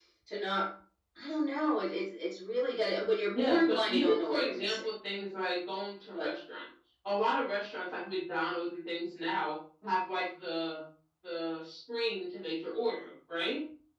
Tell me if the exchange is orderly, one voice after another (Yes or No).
No